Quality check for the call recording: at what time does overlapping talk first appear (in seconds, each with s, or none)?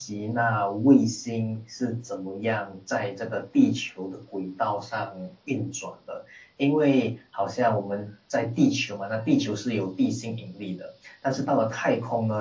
none